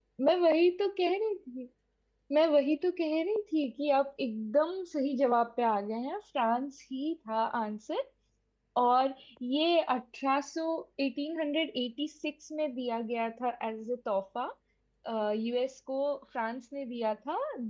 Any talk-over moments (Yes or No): No